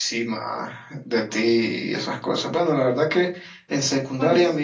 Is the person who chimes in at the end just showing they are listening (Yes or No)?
Yes